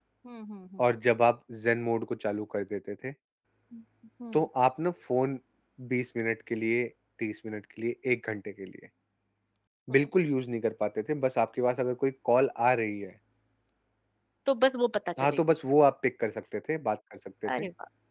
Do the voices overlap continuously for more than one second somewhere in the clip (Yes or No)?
No